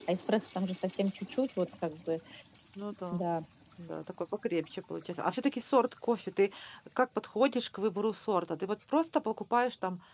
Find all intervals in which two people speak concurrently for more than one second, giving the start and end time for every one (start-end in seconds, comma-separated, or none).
none